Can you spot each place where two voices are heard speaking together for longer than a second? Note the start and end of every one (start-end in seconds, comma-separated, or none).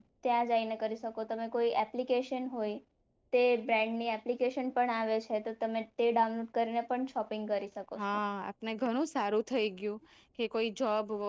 none